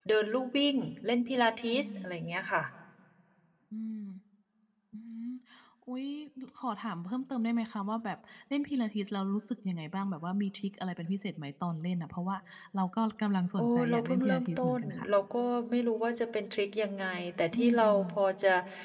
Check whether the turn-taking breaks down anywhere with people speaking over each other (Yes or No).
Yes